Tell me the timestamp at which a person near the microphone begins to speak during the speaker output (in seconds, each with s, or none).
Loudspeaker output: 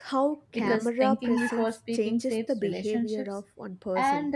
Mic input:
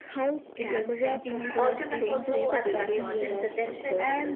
1.6 s